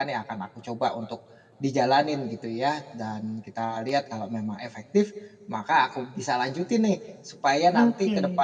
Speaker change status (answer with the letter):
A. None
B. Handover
A